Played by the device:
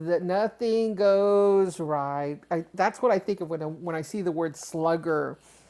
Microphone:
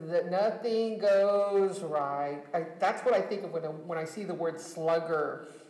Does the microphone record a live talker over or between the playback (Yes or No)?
No